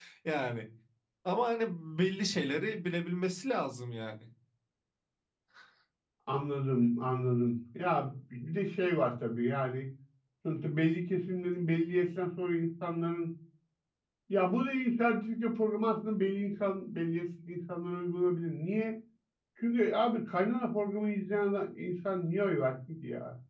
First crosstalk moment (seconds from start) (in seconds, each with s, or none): none